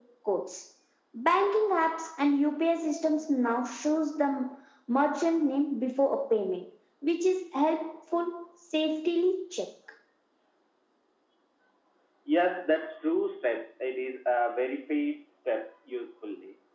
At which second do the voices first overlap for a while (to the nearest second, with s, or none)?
none